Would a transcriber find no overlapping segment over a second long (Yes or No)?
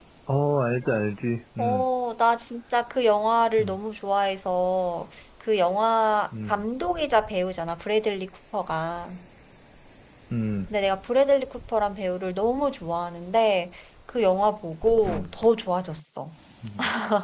Yes